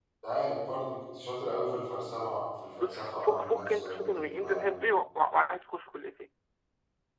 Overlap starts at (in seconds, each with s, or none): 2.8 s